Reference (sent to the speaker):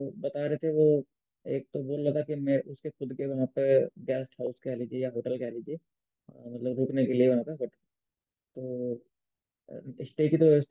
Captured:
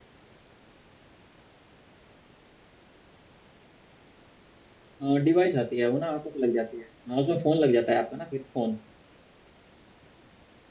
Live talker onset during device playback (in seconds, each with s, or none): 5.0 s